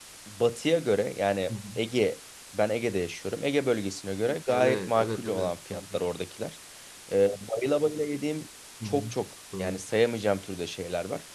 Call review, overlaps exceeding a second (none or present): present